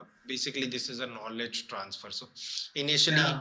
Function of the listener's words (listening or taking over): listening